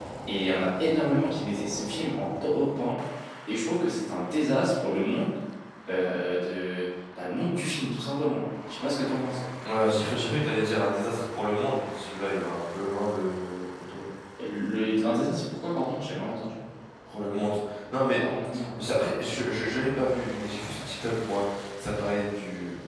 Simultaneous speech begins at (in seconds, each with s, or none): none